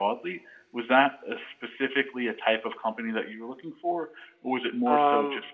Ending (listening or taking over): taking over